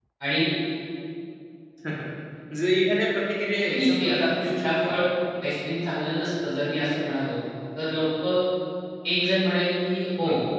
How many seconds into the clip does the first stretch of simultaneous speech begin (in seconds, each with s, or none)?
3.5 s